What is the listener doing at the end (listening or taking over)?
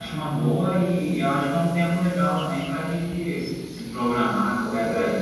listening